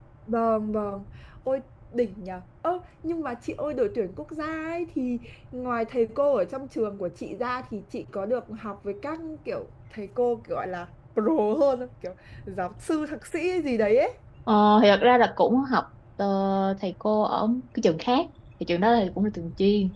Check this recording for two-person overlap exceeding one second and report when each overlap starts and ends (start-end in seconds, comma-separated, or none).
none